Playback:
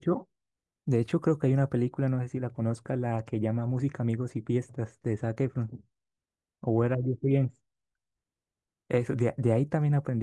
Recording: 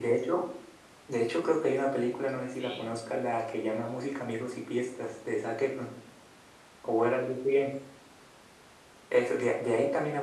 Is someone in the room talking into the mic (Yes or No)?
Yes